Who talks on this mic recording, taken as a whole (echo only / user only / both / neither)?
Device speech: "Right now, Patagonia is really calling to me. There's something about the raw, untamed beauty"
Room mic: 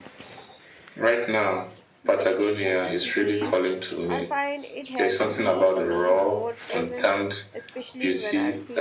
both